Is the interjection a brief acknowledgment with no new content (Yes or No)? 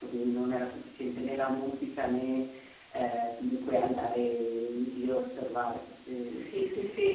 No